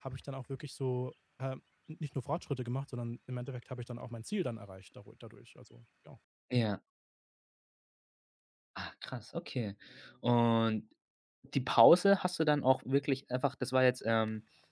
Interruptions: none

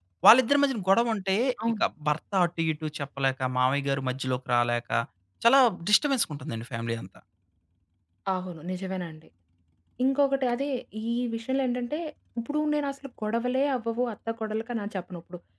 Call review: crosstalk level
none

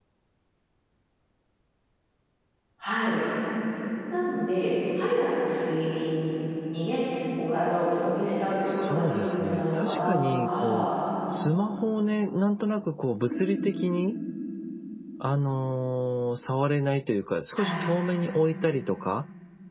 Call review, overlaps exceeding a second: present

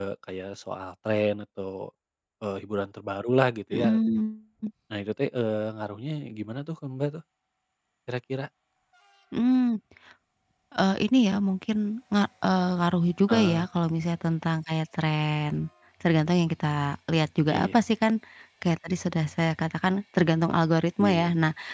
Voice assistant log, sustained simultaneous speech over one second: none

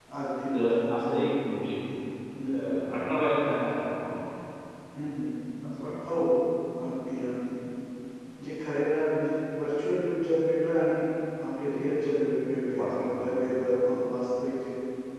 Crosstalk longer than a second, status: present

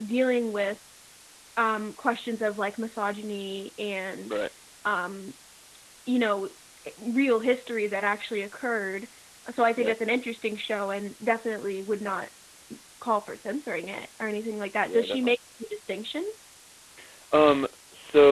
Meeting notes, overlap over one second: none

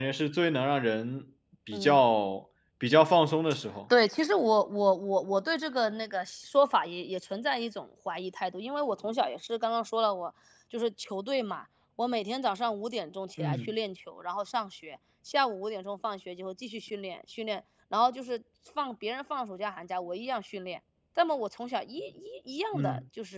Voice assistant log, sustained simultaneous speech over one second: none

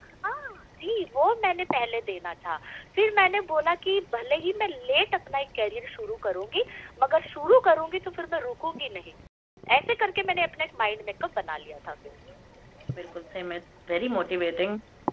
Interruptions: none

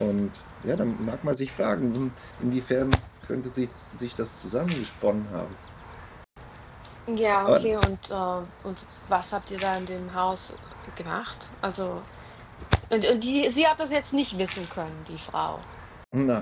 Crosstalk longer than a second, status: none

